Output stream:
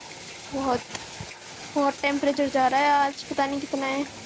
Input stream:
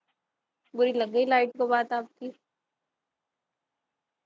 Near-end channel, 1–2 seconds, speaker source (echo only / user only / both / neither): user only